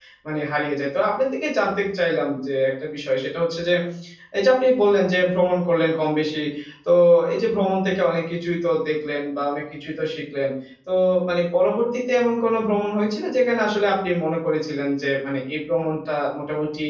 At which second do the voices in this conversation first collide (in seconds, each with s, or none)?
none